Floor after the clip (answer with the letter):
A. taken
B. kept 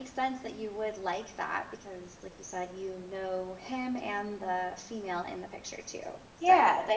A